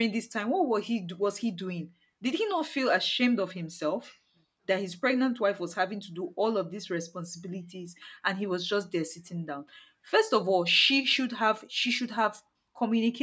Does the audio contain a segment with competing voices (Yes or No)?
No